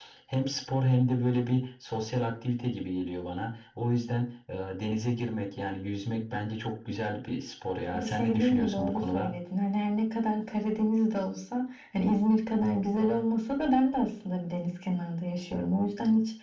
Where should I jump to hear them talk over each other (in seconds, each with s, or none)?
7.9 s